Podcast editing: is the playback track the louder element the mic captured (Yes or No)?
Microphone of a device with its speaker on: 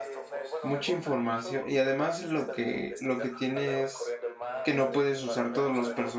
No